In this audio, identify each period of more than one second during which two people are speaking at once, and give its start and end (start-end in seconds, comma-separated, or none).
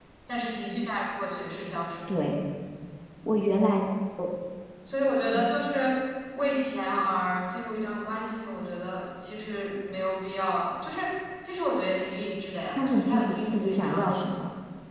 12.8-14.4